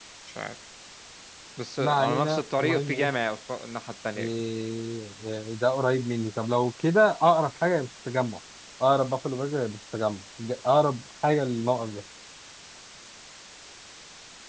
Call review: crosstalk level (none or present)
present